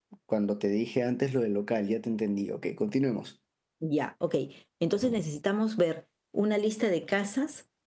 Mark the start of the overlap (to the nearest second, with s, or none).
none